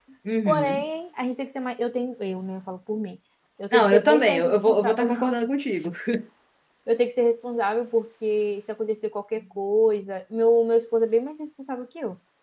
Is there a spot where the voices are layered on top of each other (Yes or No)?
Yes